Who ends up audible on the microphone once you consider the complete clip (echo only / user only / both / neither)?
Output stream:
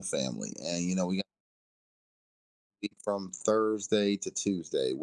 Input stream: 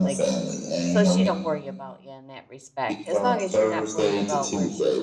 both